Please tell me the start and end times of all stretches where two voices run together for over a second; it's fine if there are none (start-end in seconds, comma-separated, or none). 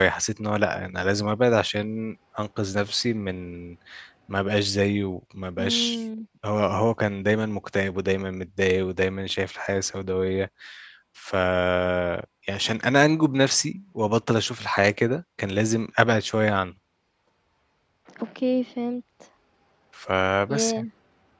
none